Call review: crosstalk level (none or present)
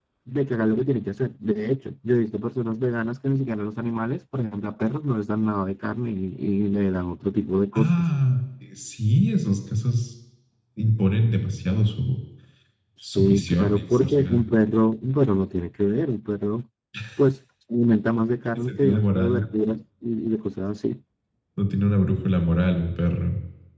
present